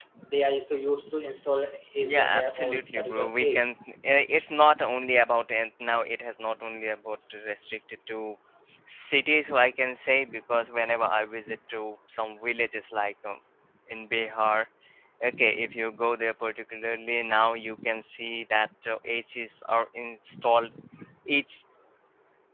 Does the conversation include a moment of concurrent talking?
Yes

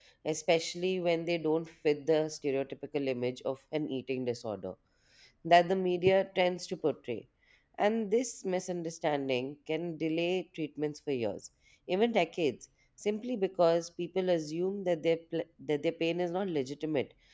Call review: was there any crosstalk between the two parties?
No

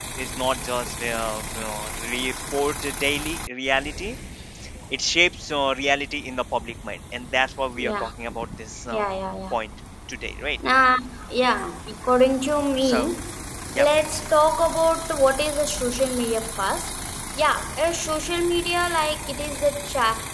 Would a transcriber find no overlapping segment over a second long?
Yes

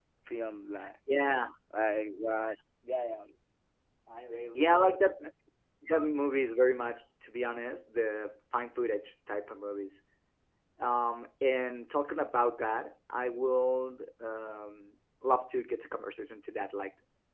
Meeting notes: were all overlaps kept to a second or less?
Yes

